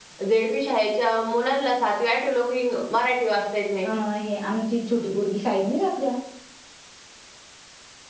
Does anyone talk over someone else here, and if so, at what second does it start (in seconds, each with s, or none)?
none